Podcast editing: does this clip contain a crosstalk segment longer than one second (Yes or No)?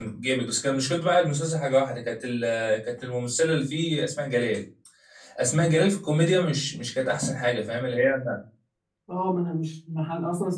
No